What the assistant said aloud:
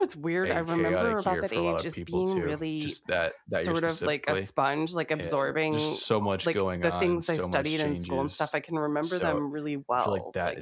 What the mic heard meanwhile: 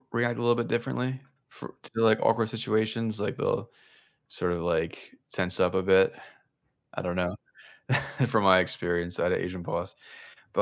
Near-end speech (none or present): present